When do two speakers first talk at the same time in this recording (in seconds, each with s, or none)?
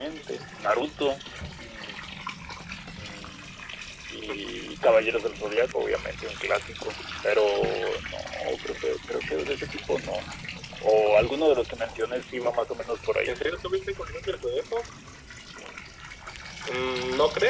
none